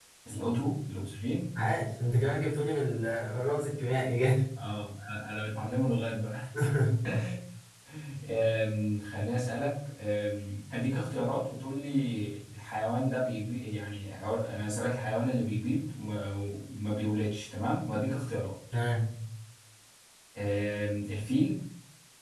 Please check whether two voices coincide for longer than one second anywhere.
No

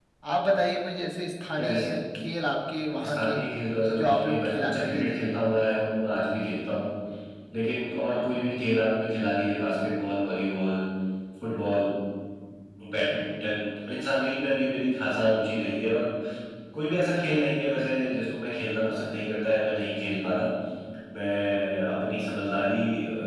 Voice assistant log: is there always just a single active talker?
No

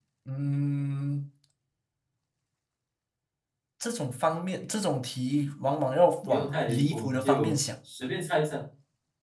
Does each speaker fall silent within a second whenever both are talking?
No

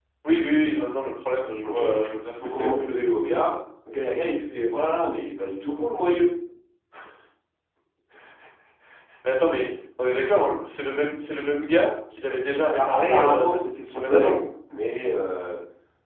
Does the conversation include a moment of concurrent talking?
Yes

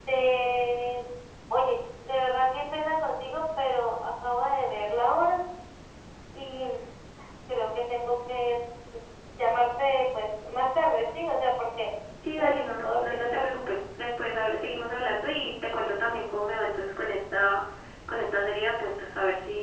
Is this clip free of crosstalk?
No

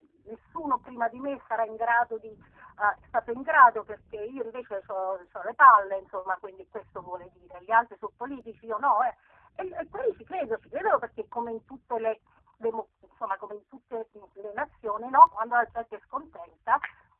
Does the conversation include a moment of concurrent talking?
No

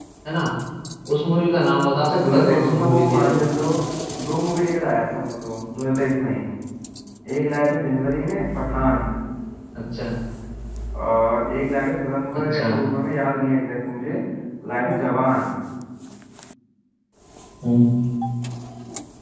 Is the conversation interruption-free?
No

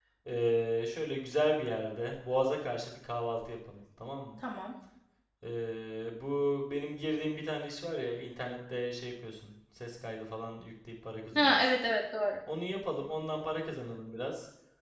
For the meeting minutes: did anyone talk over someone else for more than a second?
No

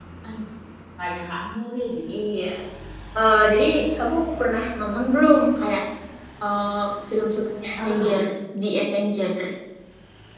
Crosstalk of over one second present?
No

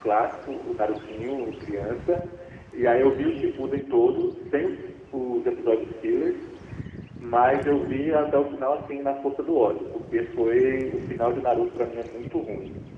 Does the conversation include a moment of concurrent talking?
No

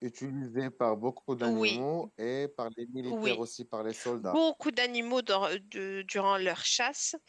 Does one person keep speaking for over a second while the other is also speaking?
No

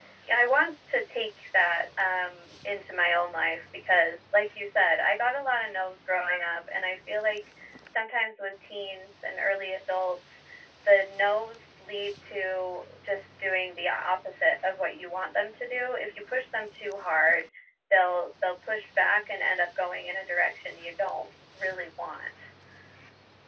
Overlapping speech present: No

